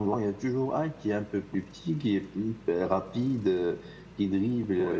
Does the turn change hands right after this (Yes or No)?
No